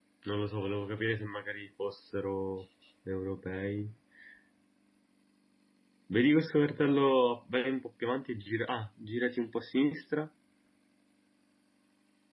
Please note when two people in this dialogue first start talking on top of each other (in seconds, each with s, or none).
none